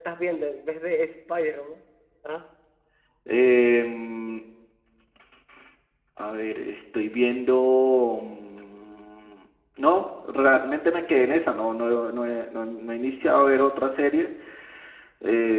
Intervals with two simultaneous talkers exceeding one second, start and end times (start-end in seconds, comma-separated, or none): none